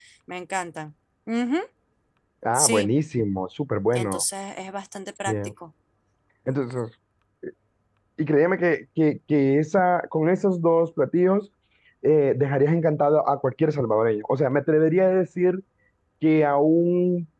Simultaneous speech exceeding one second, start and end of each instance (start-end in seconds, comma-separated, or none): none